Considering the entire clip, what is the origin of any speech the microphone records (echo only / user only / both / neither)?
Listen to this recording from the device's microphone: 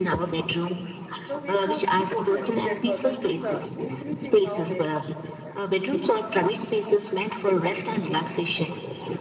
both